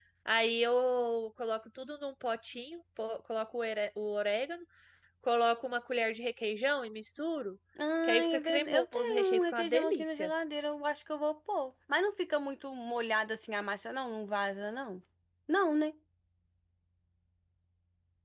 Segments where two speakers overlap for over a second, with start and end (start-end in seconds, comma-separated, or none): 8.0-10.3